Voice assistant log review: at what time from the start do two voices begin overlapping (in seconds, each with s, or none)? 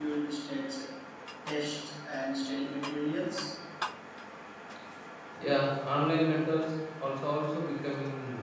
none